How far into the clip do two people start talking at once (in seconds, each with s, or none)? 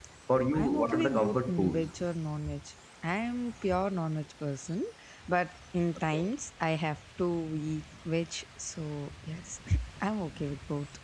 0.5 s